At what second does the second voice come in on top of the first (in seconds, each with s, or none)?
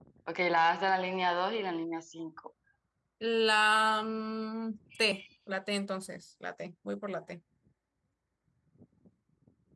none